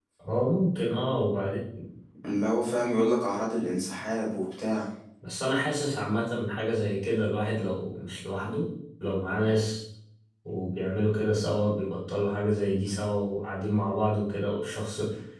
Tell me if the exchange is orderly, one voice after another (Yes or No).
Yes